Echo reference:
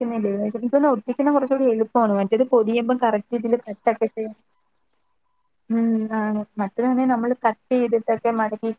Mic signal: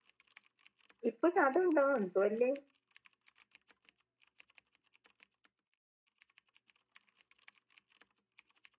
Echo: none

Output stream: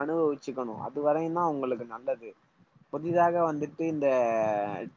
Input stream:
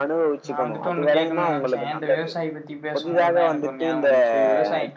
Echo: present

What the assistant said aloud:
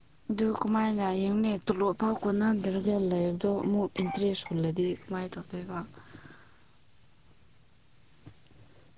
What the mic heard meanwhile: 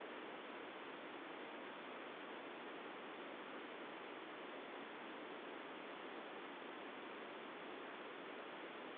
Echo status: none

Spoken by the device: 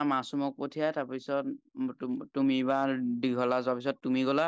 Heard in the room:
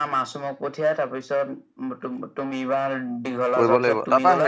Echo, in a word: present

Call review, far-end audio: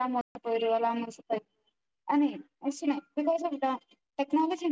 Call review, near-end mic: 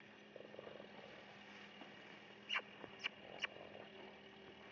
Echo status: none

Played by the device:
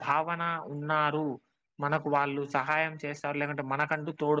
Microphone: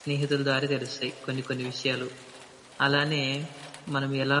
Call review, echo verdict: none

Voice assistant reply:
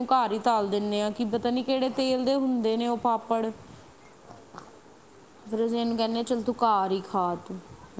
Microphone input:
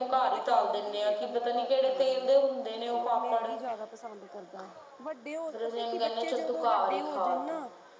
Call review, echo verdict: present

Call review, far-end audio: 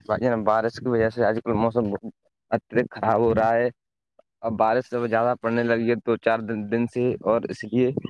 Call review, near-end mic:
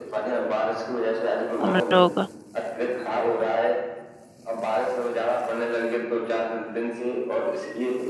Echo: present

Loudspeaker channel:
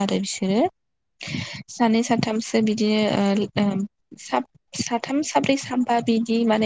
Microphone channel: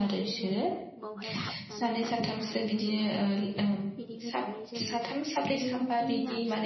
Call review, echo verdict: present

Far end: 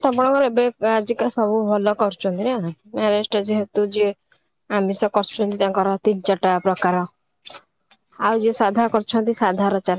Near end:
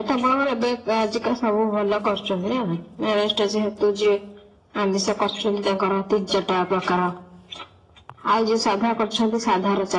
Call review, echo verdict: present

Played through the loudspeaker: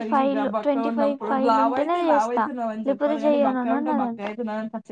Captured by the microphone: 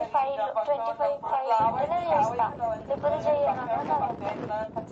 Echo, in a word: present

